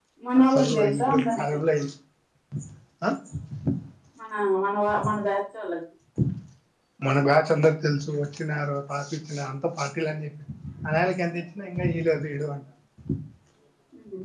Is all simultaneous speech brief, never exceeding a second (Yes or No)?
No